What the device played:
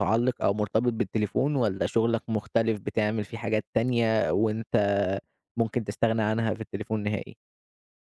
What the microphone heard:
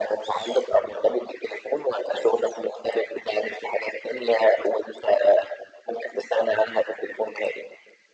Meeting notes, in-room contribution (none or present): none